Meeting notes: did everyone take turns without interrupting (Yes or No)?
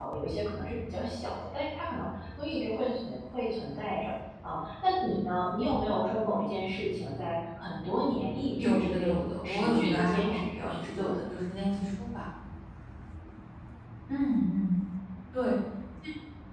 No